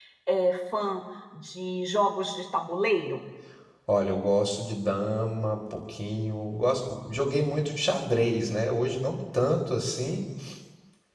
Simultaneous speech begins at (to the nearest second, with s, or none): none